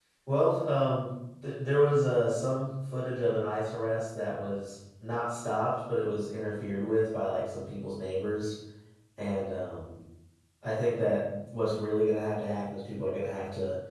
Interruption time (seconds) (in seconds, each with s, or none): none